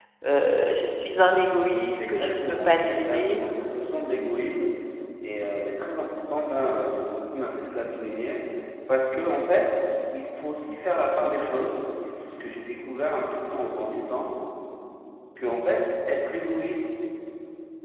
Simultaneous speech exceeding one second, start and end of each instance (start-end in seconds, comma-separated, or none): 2.0-3.4